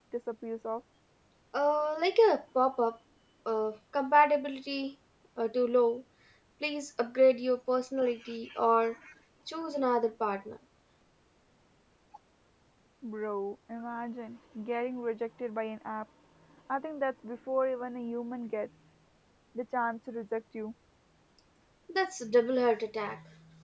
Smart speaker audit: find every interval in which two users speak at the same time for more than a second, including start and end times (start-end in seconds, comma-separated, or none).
none